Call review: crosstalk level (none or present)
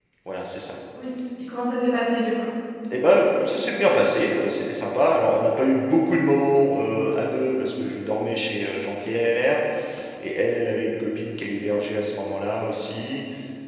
none